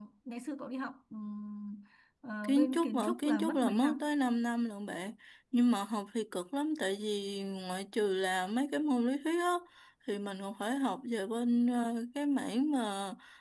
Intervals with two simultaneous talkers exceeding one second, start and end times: 2.4-4.1

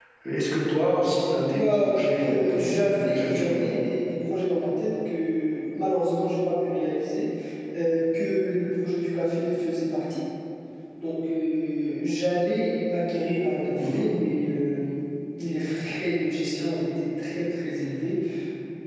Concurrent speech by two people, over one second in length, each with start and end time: 1.4-3.5

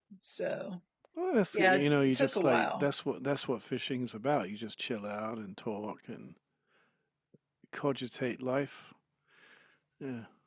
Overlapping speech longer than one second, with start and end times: 1.5-2.9

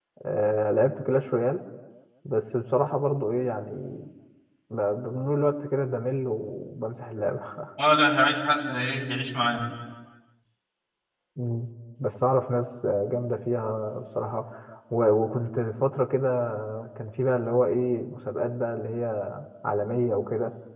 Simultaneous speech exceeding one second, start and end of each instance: none

